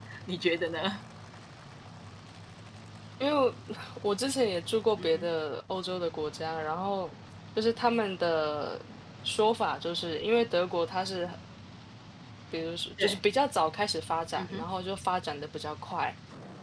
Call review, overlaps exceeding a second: none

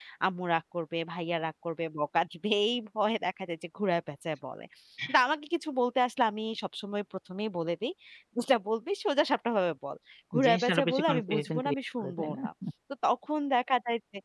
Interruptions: present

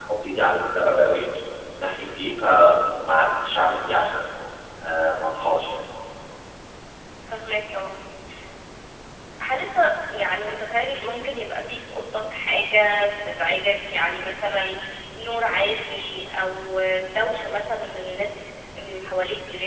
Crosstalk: none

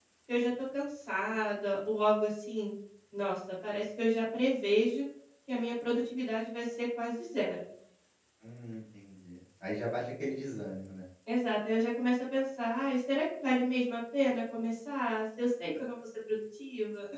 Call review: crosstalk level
none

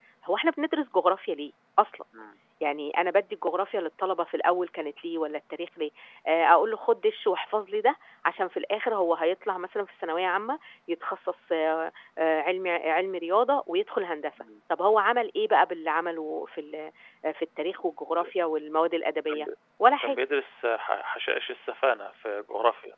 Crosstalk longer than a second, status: none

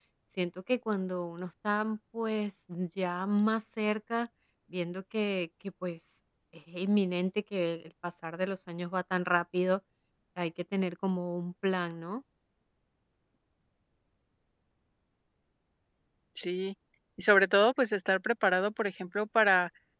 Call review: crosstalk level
none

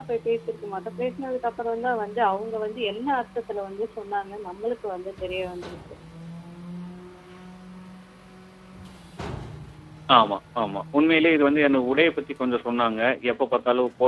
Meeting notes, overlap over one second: none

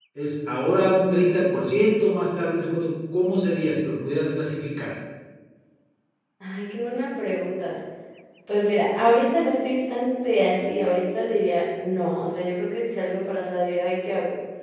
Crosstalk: none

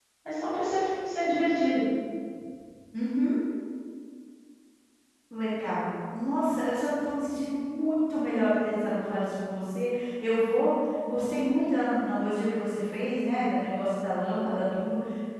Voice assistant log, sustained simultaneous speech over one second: none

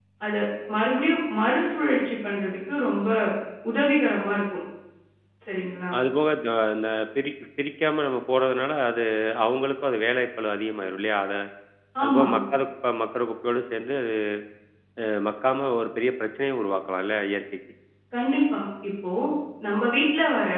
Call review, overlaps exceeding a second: none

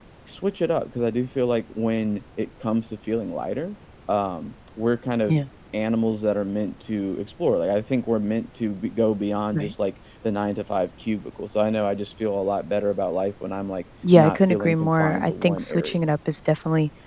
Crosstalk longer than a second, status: present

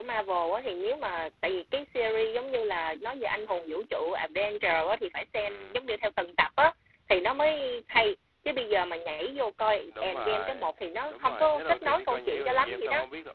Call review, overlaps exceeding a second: present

